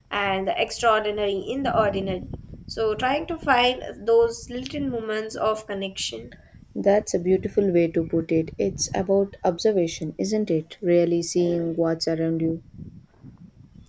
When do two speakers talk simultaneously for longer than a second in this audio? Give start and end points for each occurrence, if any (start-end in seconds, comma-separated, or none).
none